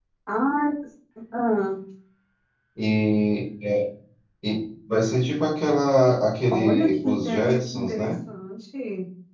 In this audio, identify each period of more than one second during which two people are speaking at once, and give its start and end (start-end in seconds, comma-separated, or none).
6.5-8.2